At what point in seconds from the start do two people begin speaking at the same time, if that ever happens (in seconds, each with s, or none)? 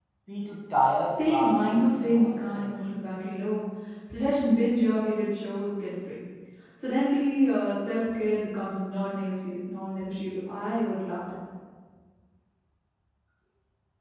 1.2 s